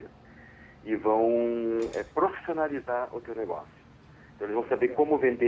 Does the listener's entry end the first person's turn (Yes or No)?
No